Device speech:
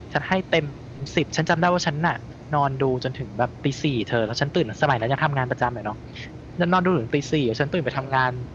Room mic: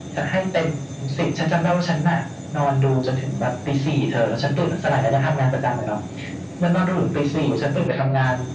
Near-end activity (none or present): none